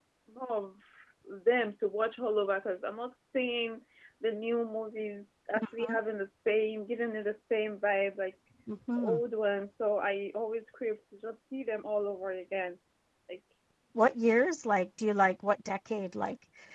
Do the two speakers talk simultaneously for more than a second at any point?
No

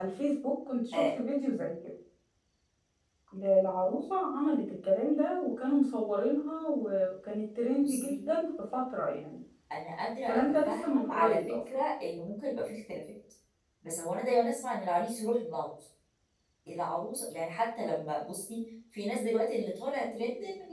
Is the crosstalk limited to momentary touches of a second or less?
No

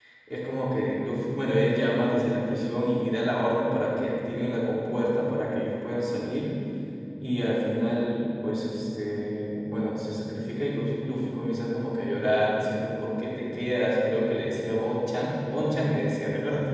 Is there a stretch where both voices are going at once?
No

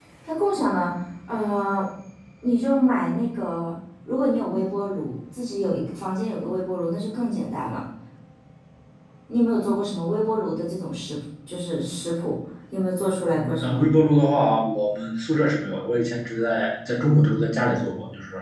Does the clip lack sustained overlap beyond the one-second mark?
Yes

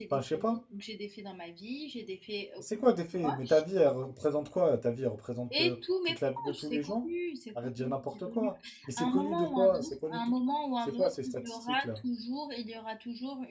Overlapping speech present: Yes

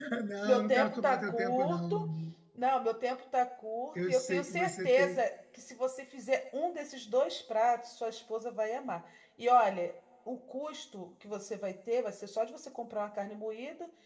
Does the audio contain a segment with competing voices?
Yes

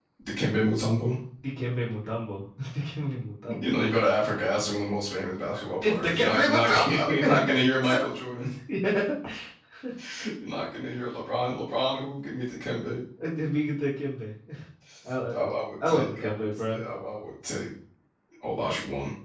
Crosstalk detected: Yes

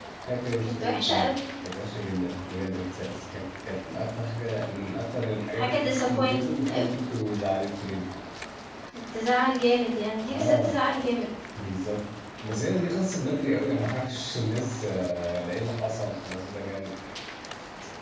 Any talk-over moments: Yes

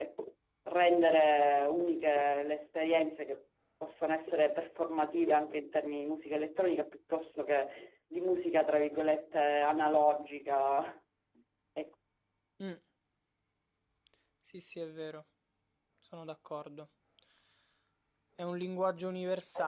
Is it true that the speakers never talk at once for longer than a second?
Yes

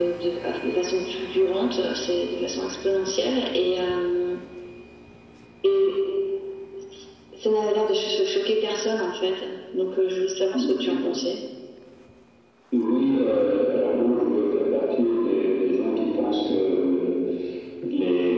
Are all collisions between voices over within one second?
Yes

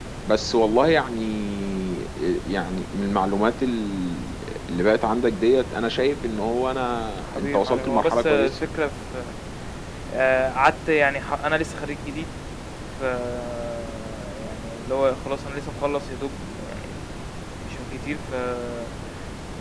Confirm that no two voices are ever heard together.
No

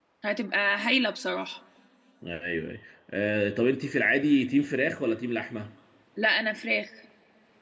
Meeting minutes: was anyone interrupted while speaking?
No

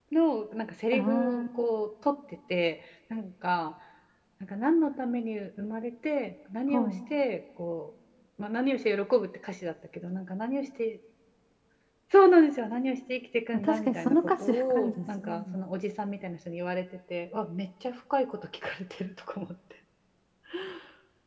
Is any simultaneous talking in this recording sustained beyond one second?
Yes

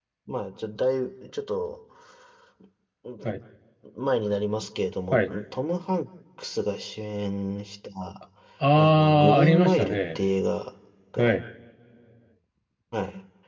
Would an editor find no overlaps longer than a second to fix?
No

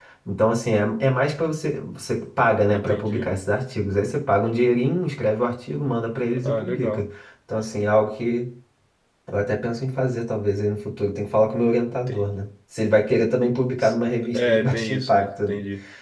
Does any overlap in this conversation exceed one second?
Yes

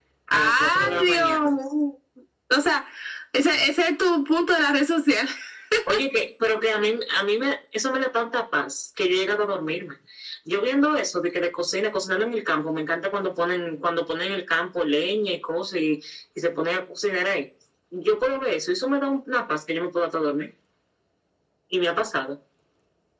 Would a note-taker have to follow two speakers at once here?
Yes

